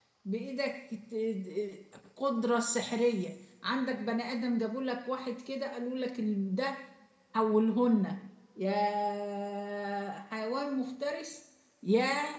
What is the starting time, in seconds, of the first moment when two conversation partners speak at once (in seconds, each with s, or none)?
none